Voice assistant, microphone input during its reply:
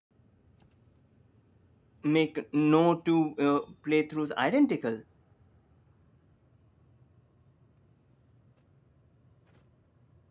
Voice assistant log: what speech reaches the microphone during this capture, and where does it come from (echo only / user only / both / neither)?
user only